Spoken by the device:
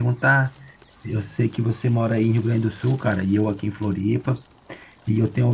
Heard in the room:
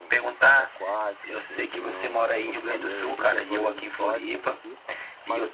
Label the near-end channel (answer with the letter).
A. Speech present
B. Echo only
A